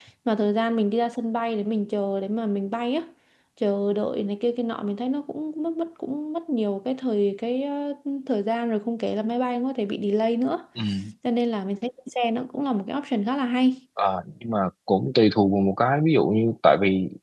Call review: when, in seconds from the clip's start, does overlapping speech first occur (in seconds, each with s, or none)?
none